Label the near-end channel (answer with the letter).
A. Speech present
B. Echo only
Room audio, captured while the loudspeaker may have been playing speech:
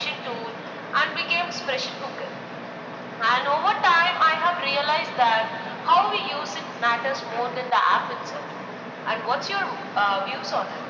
B